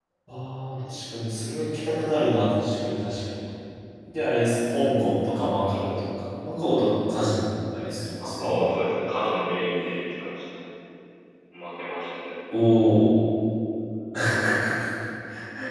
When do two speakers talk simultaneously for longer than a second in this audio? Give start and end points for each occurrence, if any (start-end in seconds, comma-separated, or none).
none